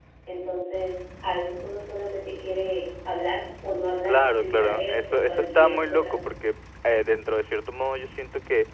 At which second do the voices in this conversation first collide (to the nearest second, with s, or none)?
4 s